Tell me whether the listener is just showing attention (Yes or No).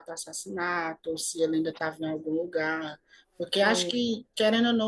Yes